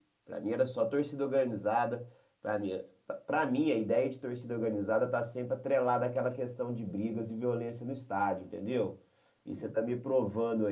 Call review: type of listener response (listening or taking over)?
listening